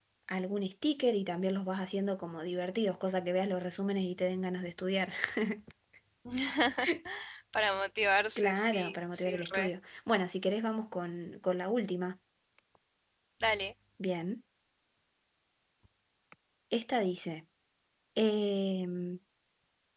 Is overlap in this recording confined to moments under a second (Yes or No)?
No